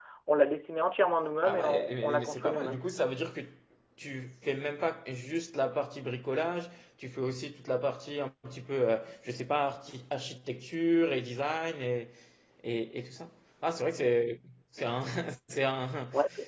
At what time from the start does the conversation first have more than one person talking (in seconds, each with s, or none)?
1.4 s